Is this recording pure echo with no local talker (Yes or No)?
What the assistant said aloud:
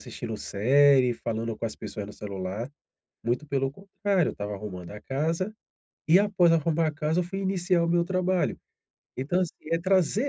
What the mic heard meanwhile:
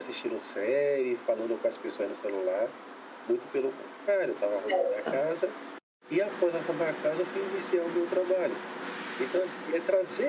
No